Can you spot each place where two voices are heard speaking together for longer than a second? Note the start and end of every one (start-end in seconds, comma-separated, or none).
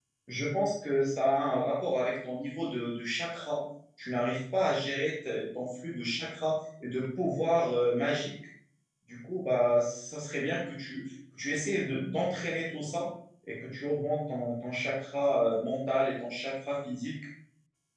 none